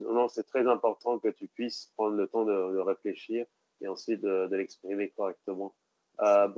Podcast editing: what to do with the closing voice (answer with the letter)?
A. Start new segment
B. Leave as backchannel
B